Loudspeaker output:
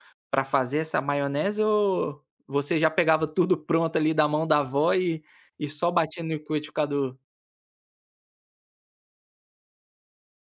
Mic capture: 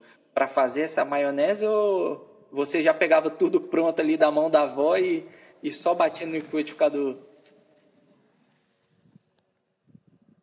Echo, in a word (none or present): present